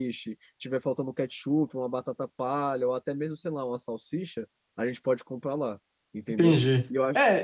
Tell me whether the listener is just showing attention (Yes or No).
No